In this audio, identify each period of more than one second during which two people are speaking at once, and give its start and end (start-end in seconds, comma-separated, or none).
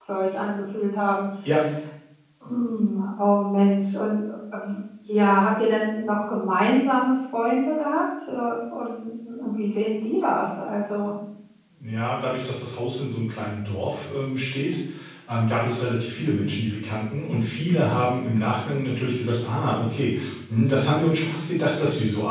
none